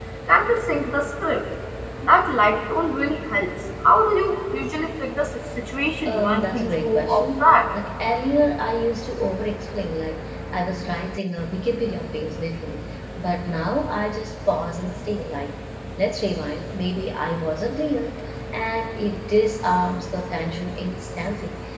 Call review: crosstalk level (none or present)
present